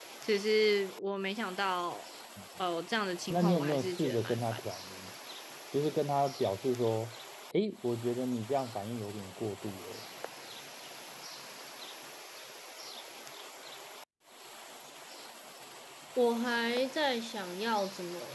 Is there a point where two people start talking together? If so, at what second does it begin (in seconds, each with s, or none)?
3.3 s